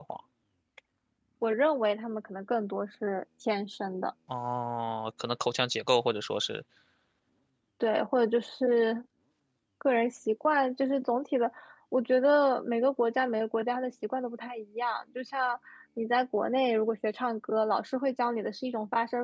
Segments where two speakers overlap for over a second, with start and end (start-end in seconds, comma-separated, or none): none